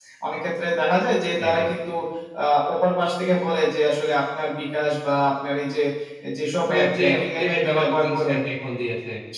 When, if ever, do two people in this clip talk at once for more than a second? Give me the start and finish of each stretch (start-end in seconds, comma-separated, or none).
6.7-8.3